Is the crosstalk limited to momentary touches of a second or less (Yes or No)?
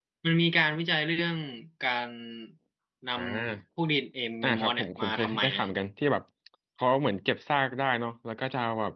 No